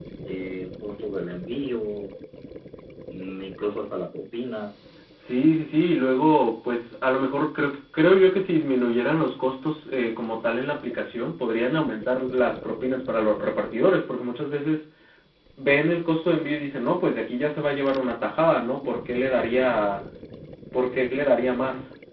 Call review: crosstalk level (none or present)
none